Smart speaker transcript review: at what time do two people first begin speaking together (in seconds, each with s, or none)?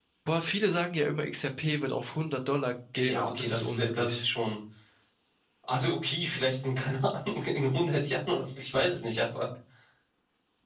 2.9 s